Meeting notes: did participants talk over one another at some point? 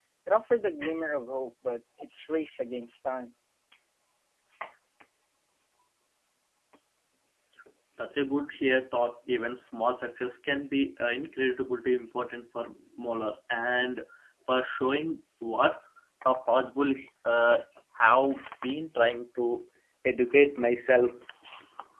No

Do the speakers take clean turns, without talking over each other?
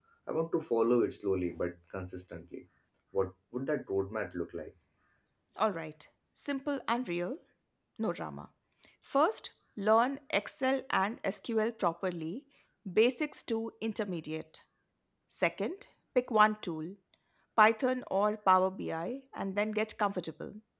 Yes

